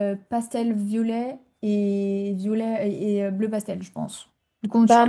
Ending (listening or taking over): taking over